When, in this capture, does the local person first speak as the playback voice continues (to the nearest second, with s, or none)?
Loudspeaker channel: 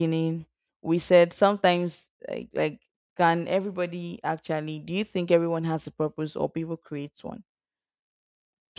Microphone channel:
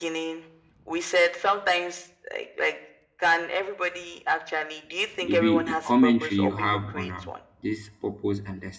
5 s